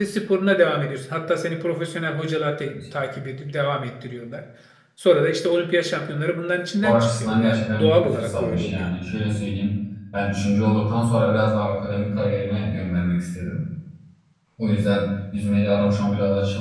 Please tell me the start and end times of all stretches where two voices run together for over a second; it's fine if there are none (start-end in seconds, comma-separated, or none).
6.8-8.9